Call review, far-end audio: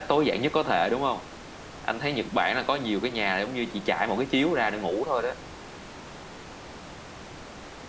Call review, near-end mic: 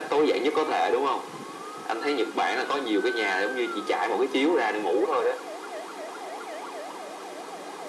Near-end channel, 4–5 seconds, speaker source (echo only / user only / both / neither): echo only